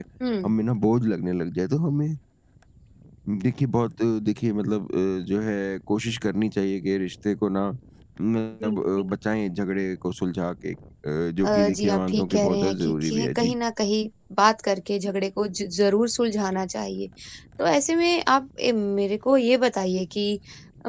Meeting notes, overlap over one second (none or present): present